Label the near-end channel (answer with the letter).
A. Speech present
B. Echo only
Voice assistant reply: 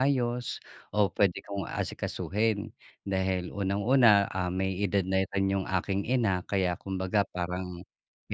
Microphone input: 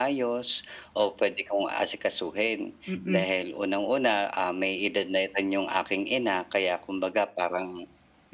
A